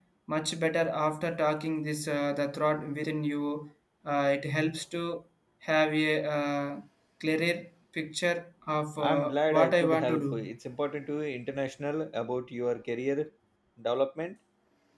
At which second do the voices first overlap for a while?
9 s

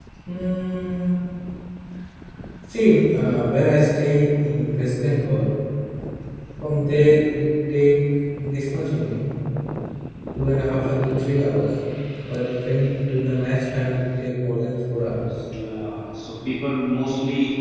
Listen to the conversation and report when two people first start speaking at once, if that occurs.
none

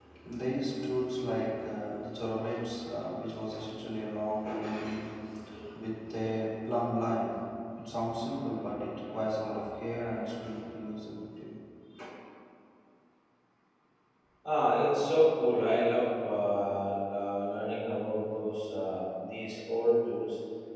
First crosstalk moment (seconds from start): none

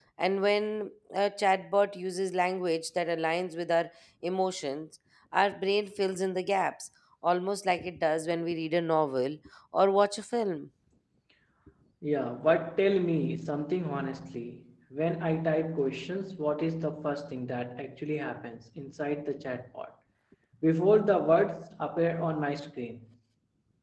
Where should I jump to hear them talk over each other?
none

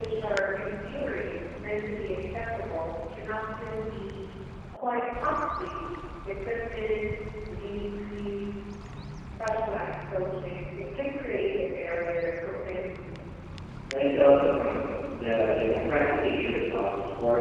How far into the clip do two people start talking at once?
none

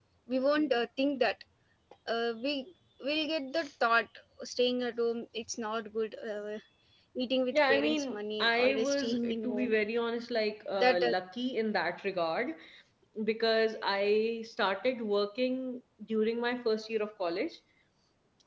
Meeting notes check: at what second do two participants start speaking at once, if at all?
8 s

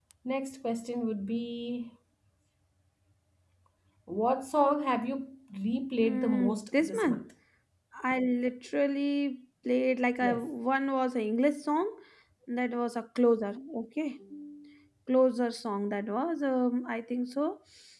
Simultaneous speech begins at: 6 s

